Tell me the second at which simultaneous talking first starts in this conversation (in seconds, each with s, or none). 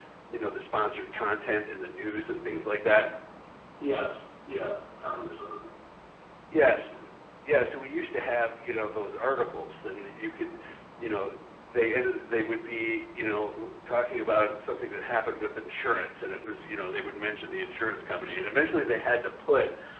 none